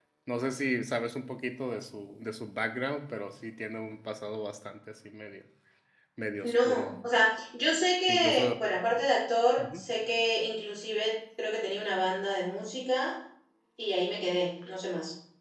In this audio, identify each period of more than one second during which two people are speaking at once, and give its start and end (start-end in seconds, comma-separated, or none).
none